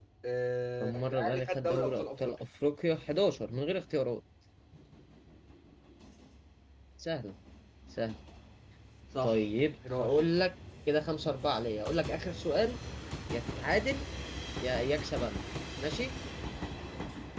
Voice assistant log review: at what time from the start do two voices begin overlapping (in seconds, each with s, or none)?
0.8 s